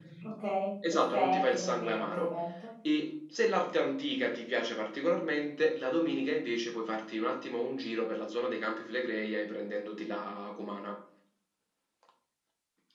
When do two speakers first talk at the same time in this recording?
0.9 s

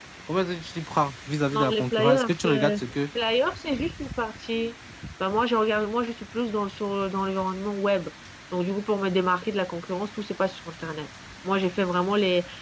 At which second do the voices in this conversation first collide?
1.5 s

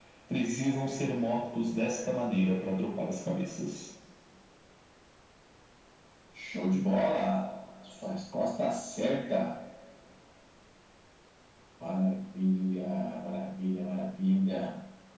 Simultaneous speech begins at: none

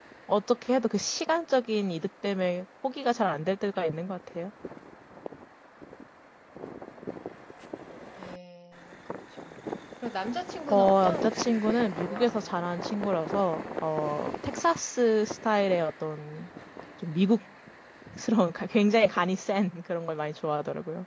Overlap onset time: 10.7 s

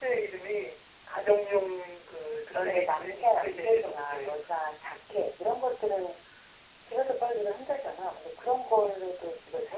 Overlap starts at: 2.5 s

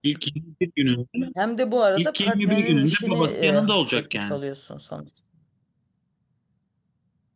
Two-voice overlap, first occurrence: 2.0 s

